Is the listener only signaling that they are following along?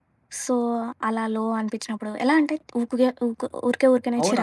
No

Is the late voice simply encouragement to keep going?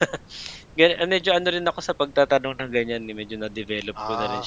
No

